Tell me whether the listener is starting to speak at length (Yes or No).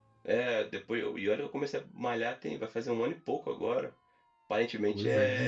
Yes